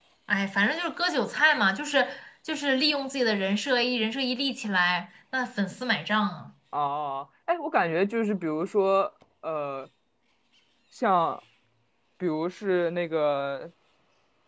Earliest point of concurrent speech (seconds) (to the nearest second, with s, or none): none